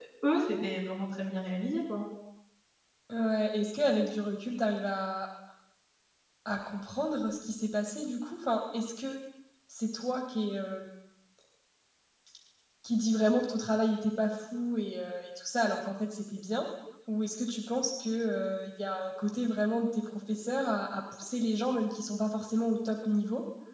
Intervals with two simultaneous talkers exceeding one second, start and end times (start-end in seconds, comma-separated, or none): none